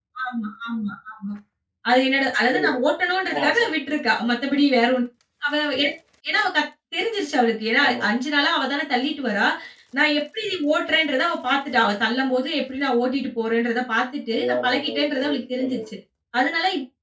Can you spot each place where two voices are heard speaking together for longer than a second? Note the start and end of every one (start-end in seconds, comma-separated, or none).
14.3-15.8